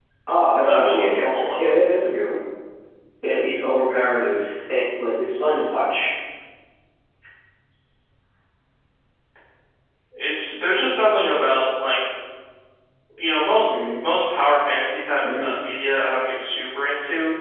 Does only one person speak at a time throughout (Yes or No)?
No